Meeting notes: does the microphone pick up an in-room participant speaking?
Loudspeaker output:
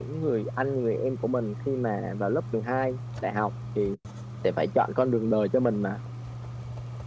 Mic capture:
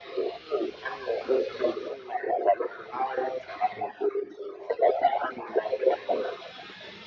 No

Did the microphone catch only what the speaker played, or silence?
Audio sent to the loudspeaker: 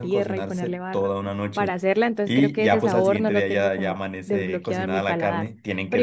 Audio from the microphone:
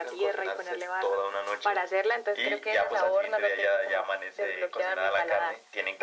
Yes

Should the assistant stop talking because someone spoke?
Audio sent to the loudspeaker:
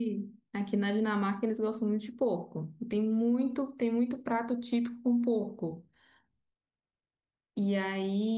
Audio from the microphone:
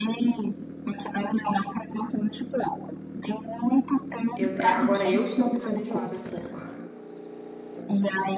Yes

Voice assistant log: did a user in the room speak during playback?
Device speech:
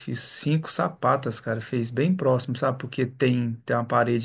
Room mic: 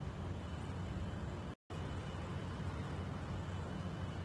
No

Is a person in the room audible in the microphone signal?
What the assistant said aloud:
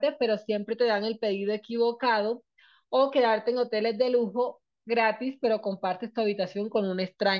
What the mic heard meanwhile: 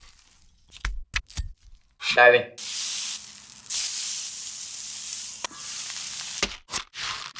Yes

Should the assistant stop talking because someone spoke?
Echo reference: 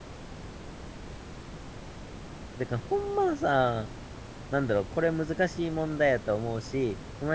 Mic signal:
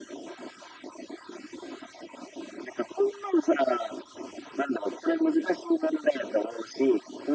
No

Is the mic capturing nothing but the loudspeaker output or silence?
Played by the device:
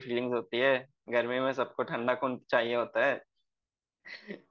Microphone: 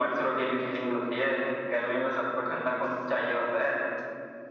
Yes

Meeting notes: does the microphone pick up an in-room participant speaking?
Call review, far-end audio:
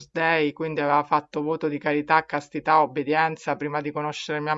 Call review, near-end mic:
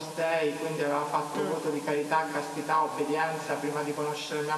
Yes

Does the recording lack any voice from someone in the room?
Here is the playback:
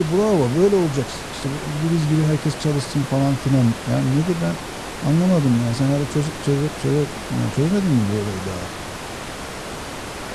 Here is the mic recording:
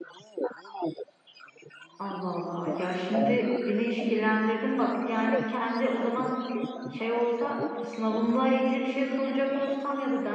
No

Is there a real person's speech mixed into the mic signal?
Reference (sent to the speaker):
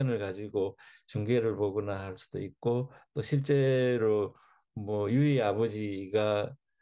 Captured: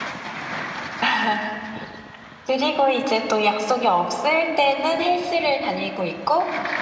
Yes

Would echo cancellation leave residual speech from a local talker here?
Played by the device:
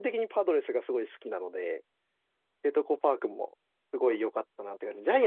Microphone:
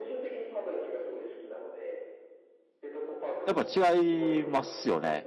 Yes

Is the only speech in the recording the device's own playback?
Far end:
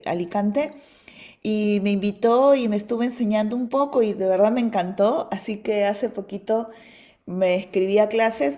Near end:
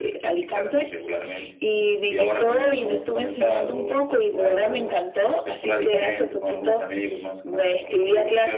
No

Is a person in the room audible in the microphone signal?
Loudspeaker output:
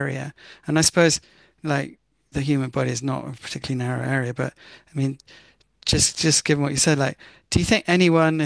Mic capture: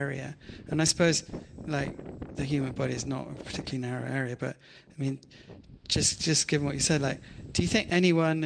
No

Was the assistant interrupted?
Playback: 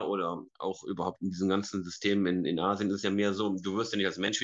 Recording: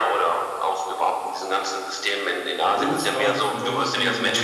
Yes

